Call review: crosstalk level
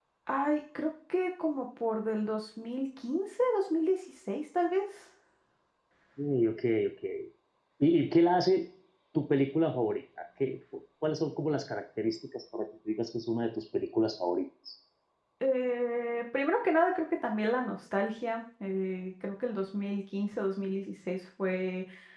none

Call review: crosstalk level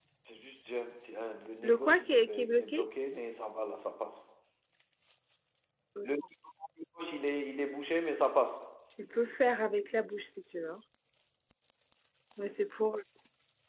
present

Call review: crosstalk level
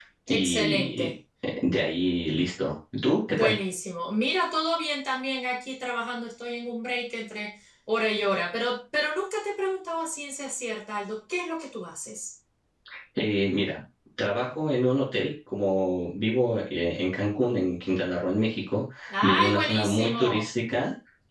present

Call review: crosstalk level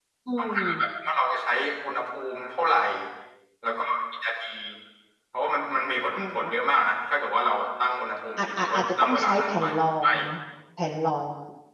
present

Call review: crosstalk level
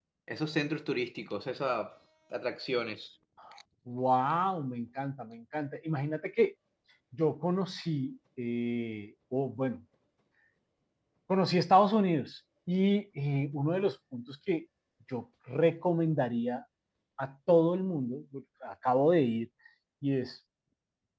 none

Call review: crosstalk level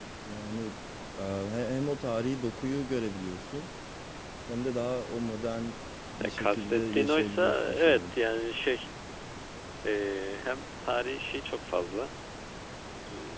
present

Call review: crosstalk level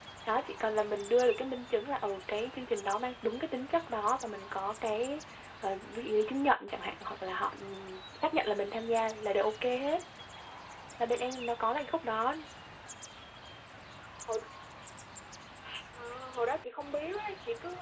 none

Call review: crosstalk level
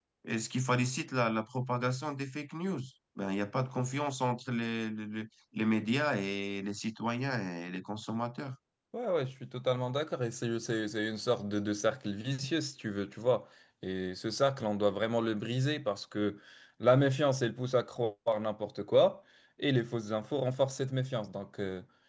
none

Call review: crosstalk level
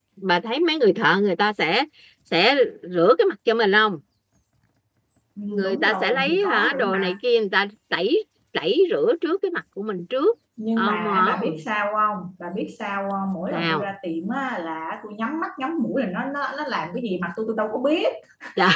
present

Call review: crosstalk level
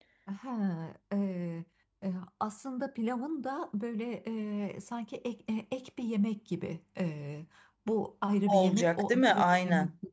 present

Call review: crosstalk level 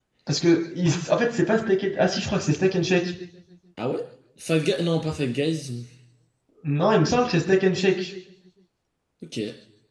none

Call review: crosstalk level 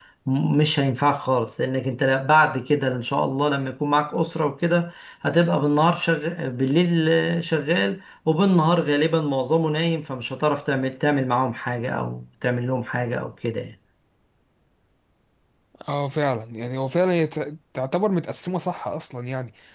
none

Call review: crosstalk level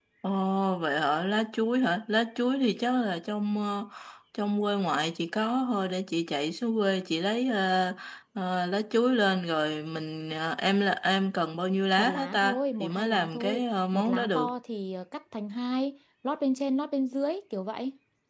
present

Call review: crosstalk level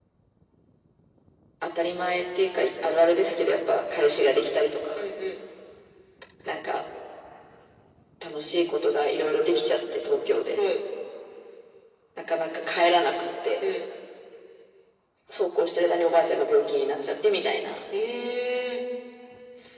none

